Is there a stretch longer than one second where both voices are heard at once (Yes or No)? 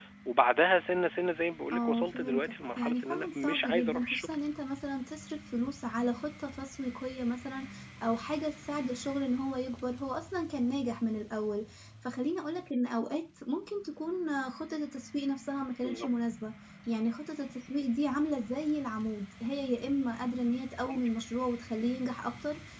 Yes